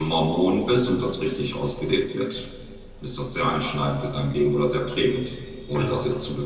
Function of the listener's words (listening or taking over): listening